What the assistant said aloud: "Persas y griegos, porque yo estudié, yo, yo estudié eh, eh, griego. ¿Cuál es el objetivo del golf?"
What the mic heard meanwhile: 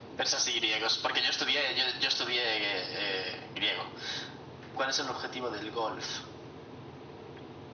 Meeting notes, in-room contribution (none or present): none